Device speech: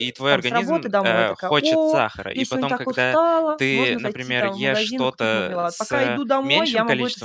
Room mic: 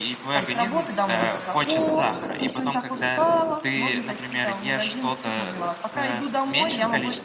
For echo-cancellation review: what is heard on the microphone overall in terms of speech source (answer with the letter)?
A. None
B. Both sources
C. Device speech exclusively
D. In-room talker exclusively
C